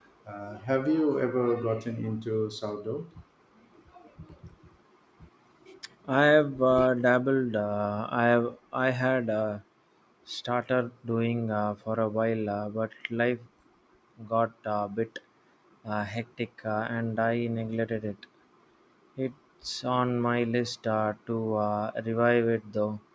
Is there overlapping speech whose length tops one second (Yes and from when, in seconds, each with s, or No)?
No